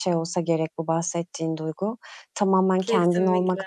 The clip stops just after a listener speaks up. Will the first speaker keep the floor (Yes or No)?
Yes